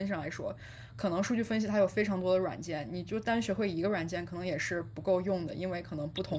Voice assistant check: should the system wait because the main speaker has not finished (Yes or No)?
Yes